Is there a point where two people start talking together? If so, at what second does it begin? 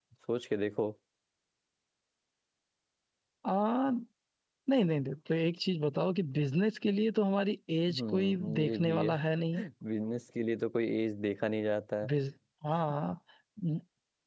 8 s

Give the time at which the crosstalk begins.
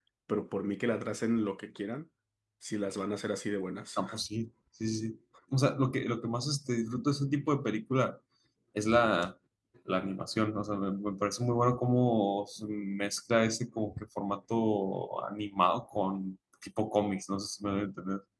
none

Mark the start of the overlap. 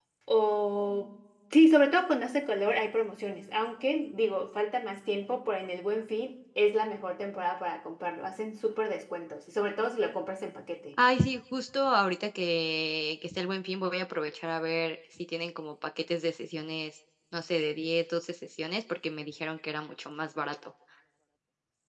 none

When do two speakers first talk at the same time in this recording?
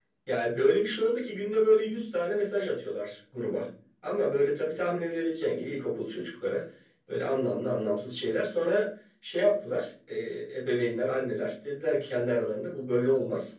none

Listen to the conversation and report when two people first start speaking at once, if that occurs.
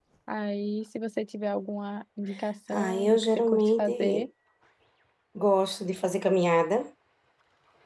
3 s

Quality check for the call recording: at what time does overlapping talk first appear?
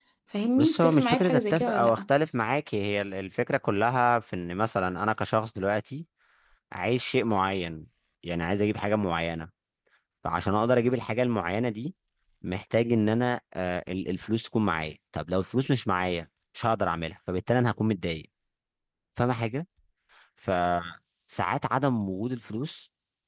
1 s

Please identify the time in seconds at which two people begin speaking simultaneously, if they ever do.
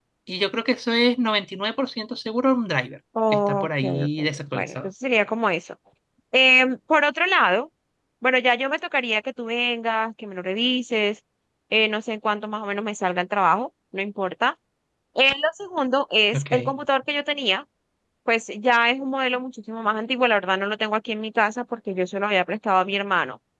3 s

